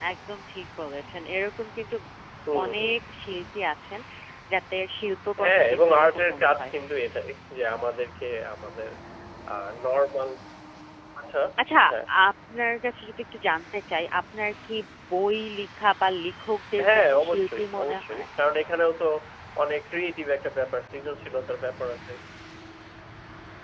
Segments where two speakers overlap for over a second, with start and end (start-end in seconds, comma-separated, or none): 5.4-6.7, 16.9-18.2